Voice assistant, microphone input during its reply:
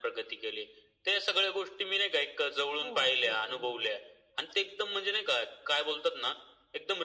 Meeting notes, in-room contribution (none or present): present